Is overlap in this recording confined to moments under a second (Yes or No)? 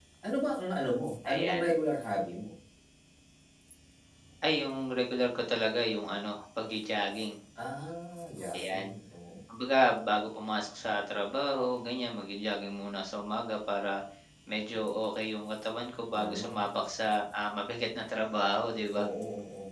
Yes